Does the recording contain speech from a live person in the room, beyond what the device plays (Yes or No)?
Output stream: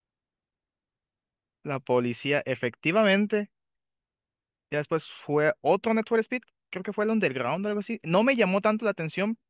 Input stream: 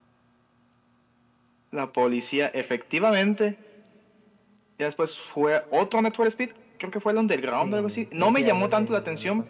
Yes